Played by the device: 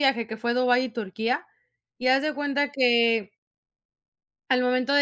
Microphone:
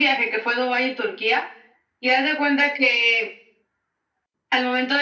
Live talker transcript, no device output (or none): none